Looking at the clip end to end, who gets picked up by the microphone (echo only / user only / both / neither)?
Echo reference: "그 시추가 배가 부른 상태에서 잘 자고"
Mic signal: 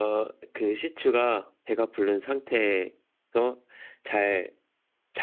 echo only